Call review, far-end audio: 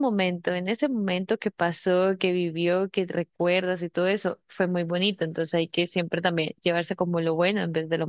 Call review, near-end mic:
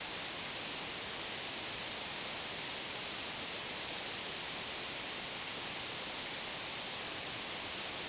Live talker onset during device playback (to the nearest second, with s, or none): none